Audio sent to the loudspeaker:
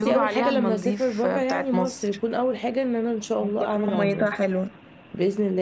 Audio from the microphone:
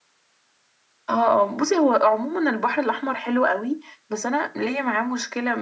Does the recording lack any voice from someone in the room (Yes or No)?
No